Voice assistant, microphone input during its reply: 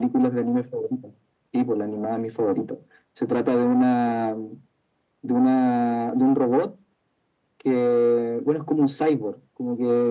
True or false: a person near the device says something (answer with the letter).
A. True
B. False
B